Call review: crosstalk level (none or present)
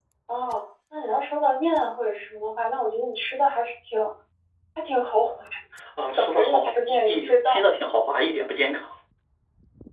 present